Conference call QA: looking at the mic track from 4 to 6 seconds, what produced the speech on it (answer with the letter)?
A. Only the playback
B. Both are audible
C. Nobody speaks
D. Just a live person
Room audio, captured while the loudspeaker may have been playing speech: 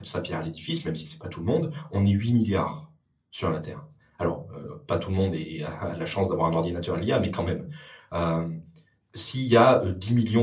D